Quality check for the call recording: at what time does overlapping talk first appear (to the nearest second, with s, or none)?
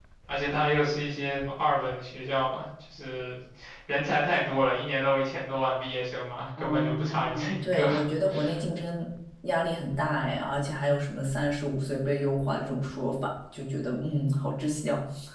7 s